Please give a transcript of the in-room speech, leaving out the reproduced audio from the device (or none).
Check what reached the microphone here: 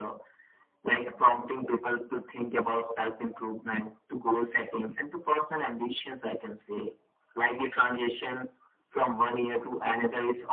none